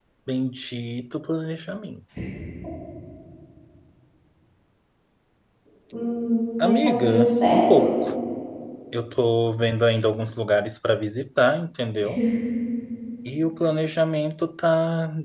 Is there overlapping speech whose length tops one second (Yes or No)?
Yes